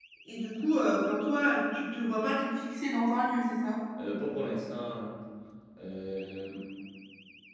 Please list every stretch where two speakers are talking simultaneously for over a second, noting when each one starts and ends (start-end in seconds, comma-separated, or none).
none